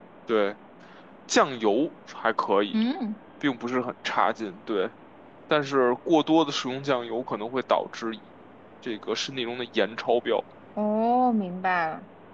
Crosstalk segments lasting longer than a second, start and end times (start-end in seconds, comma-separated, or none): none